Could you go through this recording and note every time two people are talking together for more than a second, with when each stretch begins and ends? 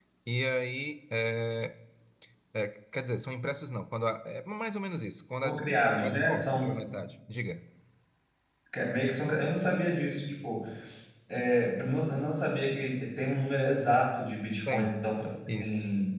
5.4-6.7

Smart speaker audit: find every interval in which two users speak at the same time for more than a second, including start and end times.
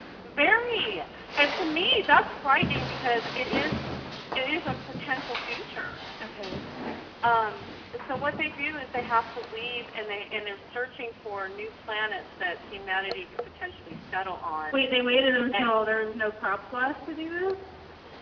none

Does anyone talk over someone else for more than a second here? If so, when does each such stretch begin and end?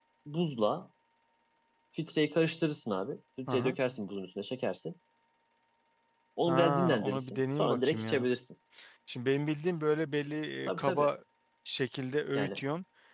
6.5-8.3

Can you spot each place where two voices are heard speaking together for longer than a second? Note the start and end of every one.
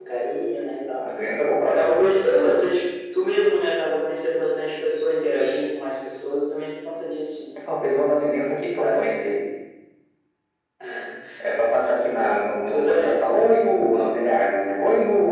11.8-13.1

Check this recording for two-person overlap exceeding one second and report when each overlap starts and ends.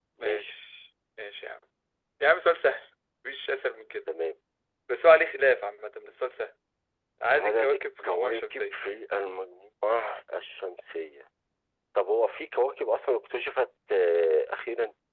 7.3-8.8

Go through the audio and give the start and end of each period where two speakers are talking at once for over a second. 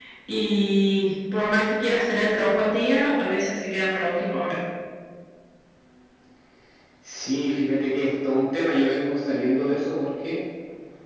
none

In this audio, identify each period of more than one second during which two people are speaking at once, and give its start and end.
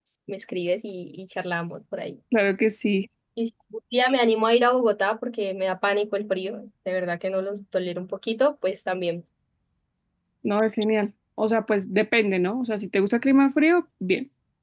none

